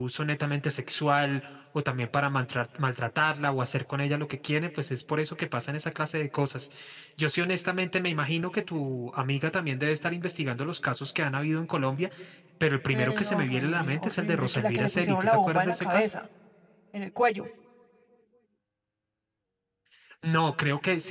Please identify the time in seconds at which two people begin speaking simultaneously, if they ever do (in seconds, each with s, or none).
12.9 s